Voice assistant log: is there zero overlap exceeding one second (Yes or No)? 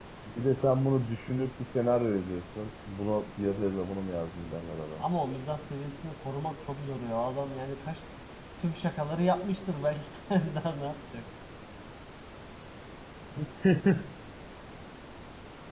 Yes